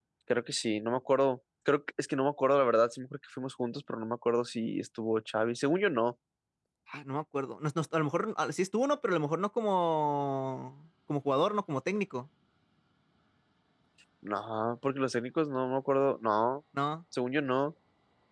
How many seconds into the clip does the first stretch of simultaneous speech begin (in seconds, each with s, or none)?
none